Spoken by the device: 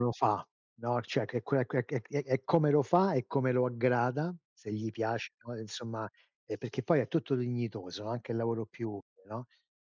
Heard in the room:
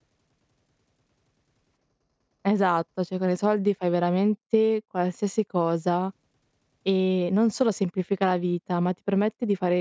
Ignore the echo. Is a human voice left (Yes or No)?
Yes